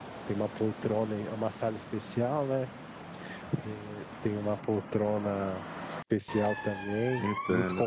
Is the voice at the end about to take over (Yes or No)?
No